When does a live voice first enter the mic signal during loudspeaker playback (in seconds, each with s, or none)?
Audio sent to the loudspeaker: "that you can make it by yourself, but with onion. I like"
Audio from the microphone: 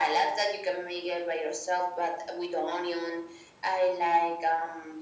none